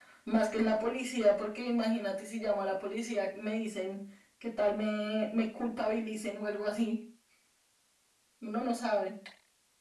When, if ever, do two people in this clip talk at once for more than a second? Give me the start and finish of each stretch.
none

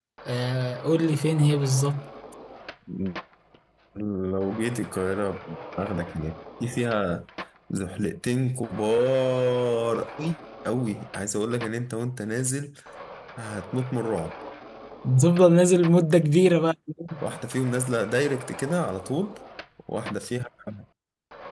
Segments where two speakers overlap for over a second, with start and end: none

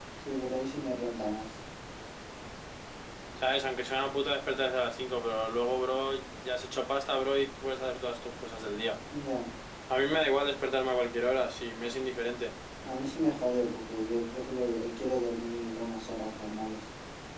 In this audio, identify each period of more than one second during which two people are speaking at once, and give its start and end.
none

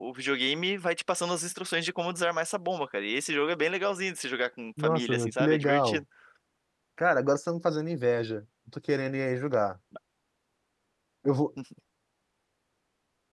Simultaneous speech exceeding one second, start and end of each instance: 4.8-6.0

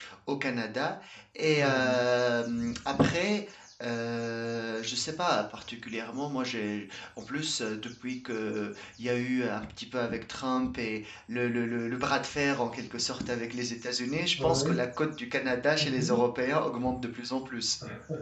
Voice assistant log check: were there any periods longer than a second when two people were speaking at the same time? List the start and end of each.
none

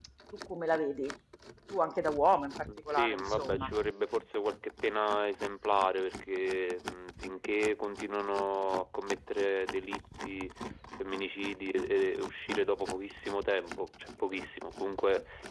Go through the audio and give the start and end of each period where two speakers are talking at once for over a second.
2.5-3.7

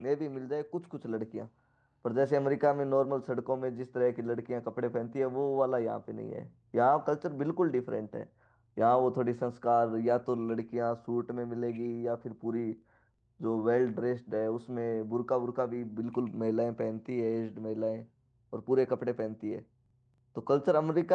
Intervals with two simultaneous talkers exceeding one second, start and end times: none

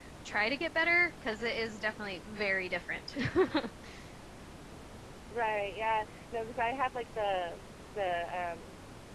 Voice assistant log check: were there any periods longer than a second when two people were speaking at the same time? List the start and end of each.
none

